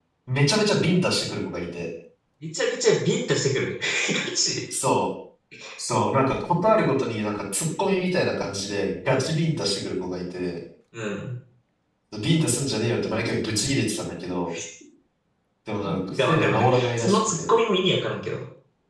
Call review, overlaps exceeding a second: present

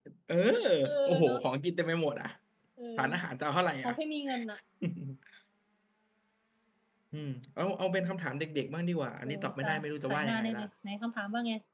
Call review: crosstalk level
present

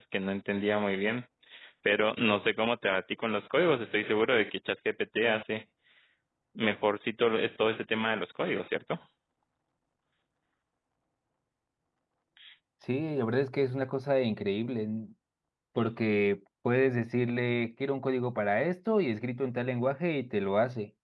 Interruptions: none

